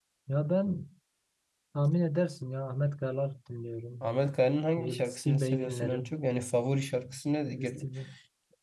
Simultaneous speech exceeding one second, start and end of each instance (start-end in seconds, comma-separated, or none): 4.8-6.1